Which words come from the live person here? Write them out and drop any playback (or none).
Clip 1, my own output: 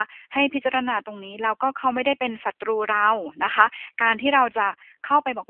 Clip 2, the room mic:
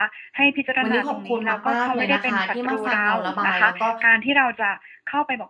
วันนี้ขอบคุณมากๆเลยนะคะที่มาฟังเราระบายแล้วก็